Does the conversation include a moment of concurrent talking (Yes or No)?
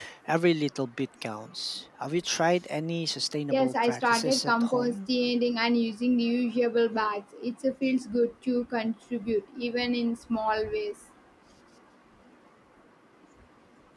Yes